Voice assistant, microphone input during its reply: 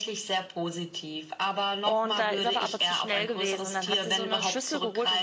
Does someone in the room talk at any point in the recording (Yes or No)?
Yes